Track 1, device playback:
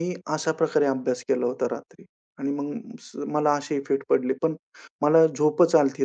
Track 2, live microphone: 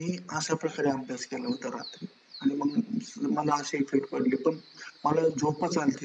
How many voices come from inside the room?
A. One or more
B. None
B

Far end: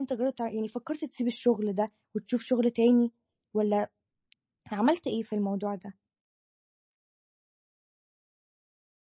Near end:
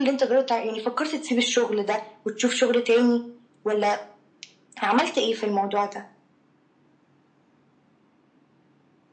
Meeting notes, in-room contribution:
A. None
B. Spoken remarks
A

